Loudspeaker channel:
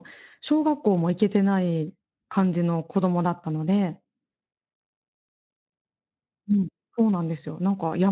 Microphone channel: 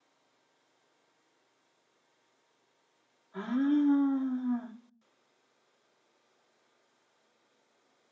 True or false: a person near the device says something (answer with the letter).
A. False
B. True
B